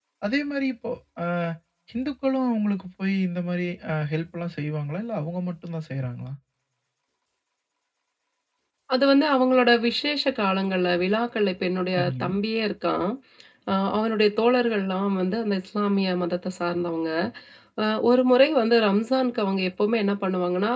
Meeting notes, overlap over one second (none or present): none